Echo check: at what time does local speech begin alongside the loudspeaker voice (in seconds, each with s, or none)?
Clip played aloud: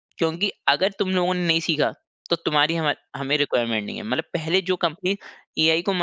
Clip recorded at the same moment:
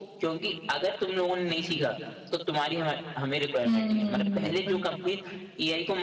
3.6 s